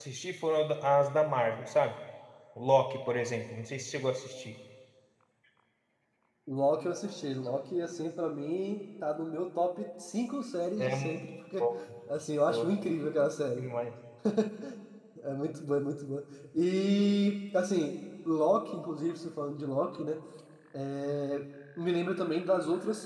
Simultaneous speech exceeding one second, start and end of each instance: none

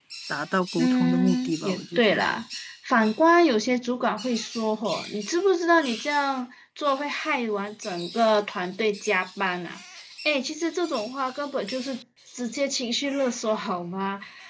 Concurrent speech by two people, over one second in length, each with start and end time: 0.8-2.2

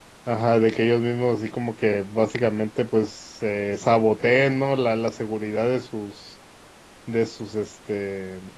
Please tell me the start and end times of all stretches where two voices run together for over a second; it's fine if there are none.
none

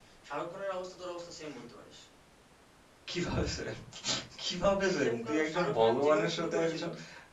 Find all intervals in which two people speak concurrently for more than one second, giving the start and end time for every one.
5.0-6.8

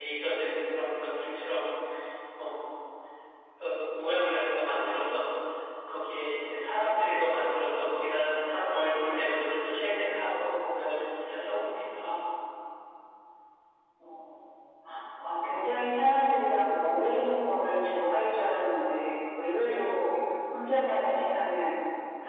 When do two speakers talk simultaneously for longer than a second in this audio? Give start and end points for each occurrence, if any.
none

